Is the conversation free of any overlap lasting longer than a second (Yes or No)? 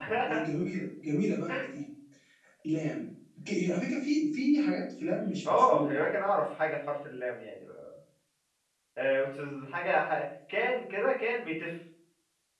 Yes